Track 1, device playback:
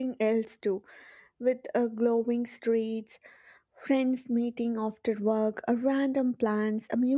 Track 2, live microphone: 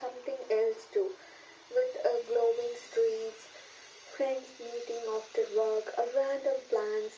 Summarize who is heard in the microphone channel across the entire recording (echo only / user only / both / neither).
echo only